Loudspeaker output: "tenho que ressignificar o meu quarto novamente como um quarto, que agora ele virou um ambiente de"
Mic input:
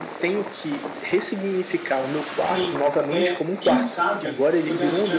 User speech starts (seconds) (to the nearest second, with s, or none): 2 s